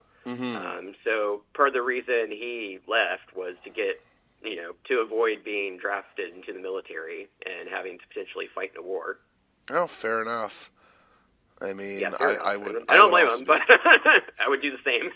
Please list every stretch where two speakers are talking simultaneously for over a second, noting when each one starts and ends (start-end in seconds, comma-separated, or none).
12.0-13.6